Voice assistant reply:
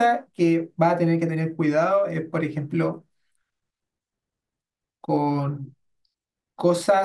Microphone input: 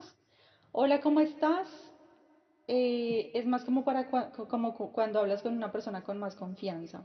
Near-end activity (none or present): present